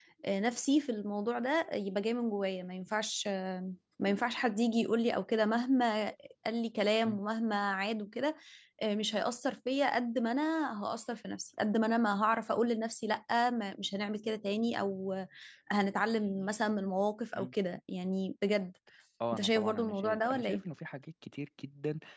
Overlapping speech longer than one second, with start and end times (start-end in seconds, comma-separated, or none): 19.3-20.6